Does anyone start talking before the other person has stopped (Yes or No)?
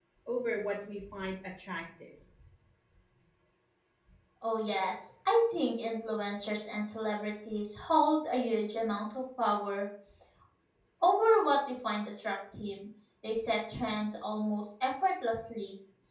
No